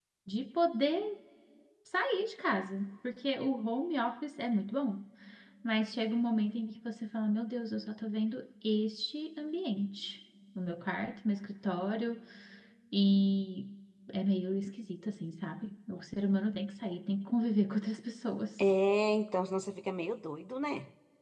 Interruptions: none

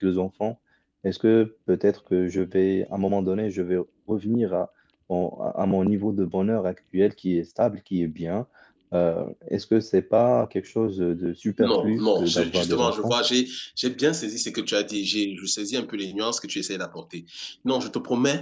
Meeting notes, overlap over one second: present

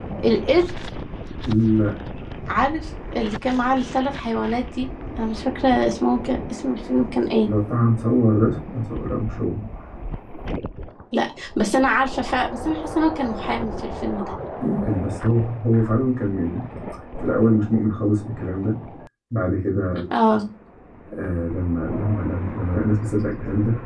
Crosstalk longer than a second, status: none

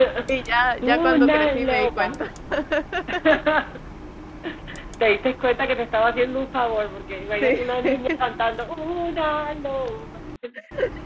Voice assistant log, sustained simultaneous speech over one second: present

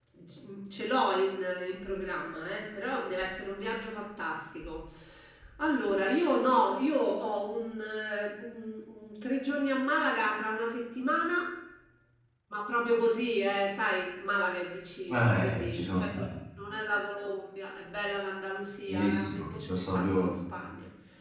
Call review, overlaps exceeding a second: present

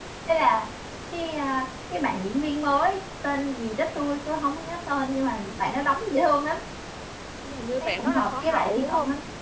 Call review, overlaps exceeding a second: present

